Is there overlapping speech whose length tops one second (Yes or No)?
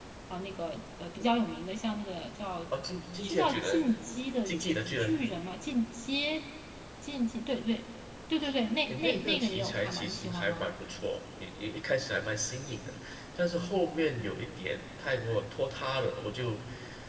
Yes